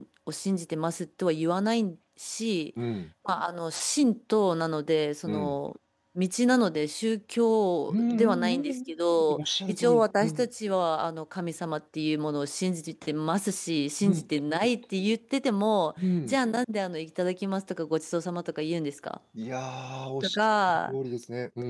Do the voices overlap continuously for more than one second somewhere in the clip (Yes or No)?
Yes